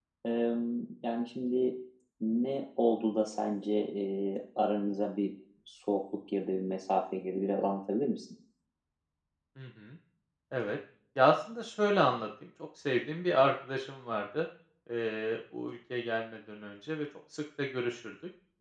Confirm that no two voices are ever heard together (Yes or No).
Yes